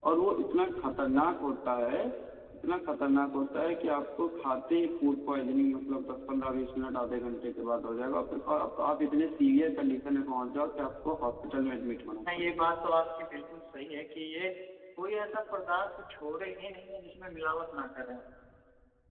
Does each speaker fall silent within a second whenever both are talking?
Yes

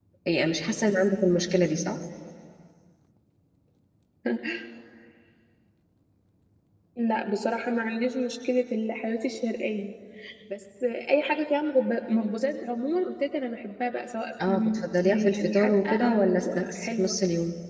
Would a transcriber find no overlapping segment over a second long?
No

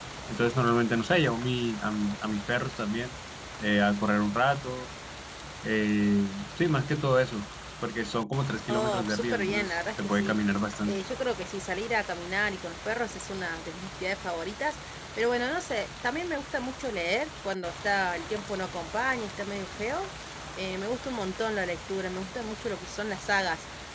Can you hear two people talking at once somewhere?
Yes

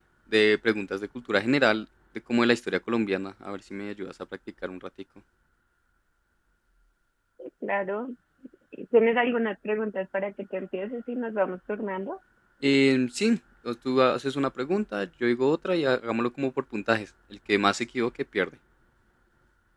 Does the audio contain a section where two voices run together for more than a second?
No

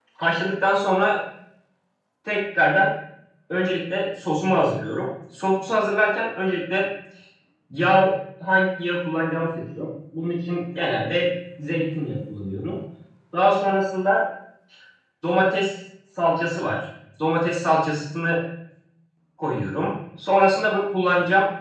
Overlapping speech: No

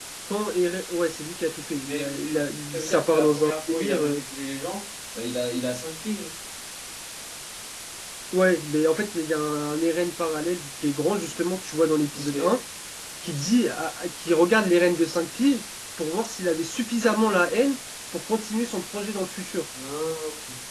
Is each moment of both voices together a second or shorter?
No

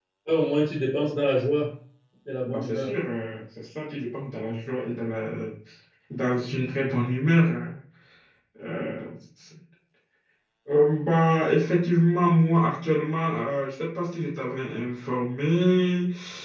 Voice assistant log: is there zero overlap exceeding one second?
Yes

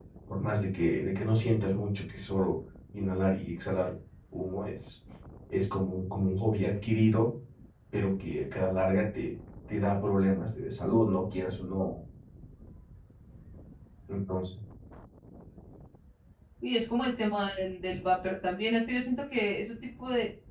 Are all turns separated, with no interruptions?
Yes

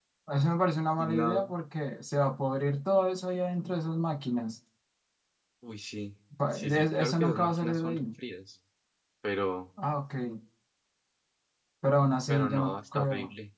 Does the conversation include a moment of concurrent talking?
Yes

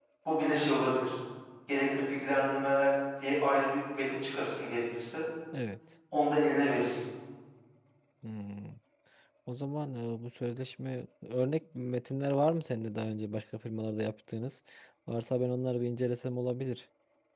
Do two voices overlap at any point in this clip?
No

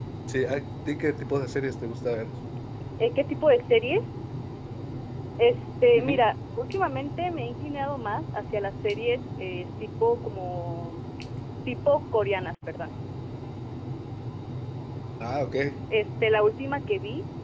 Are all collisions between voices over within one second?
Yes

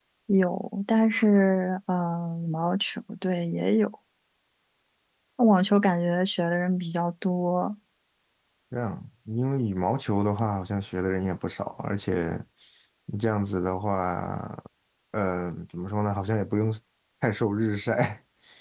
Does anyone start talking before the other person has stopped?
No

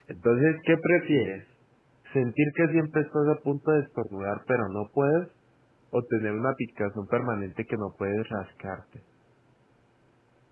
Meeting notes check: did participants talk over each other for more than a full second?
No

